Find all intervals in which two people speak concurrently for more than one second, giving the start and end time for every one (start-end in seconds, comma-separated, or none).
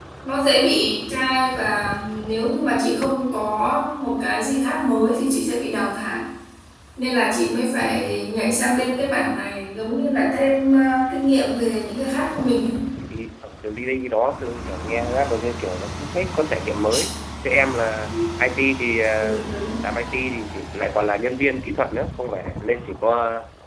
none